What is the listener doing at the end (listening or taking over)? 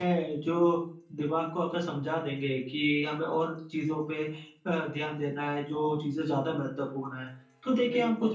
listening